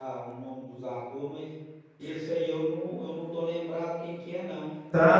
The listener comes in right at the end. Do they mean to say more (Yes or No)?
Yes